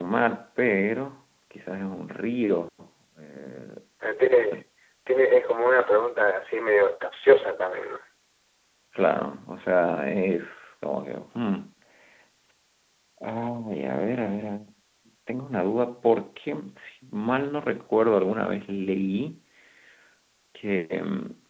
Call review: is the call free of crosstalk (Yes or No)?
Yes